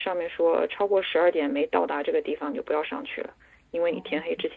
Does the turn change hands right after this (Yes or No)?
Yes